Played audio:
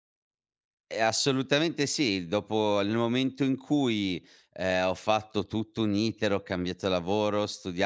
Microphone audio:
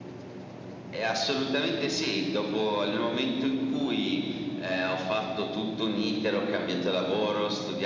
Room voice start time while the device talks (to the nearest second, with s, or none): none